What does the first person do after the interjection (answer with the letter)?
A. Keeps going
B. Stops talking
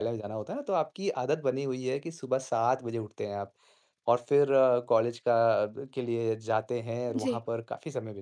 A